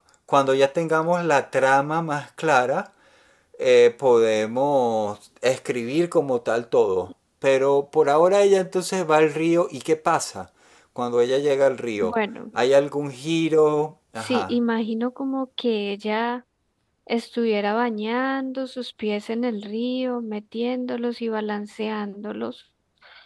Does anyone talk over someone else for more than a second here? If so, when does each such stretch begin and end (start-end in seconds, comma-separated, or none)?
none